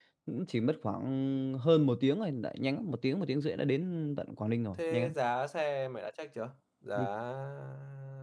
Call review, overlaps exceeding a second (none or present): none